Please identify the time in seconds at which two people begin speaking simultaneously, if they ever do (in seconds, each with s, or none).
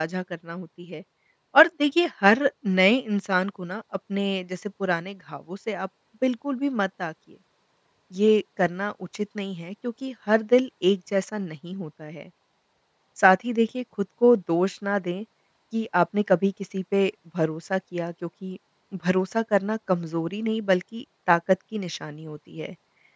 none